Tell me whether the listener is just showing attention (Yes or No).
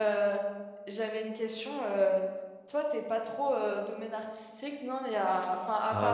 No